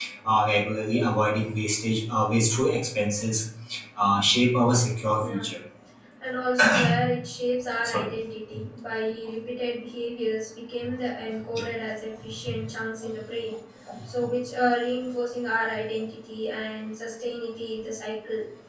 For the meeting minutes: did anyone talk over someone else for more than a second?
No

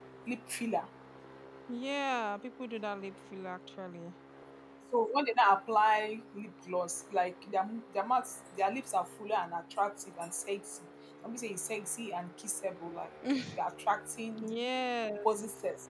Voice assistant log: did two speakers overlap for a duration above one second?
No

